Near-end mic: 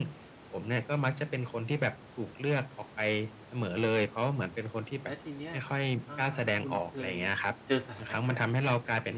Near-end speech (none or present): present